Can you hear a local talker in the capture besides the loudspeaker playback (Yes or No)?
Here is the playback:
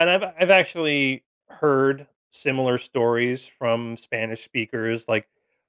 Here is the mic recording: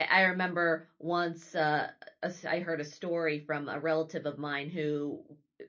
Yes